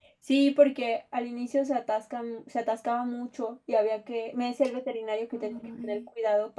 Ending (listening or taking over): listening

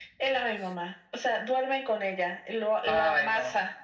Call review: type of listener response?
listening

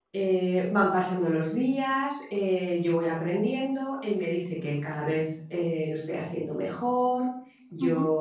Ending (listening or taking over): listening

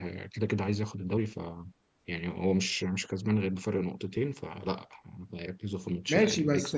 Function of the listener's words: taking over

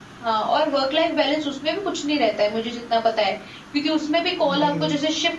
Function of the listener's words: listening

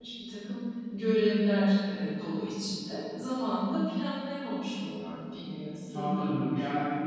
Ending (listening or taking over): taking over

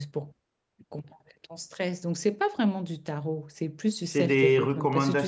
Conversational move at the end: taking over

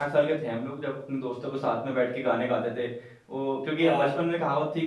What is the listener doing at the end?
listening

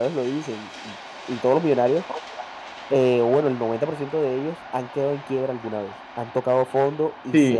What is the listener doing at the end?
taking over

